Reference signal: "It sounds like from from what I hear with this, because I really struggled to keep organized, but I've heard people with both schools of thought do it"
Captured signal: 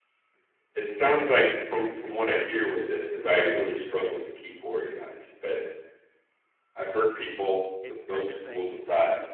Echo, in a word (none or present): present